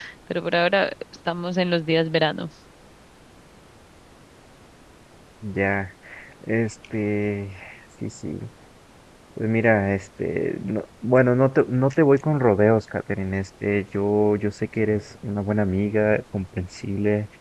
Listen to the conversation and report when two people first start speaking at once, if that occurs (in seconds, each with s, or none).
none